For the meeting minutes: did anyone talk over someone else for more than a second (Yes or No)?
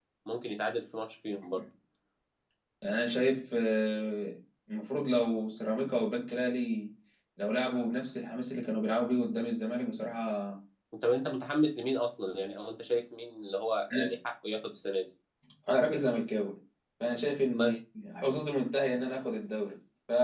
No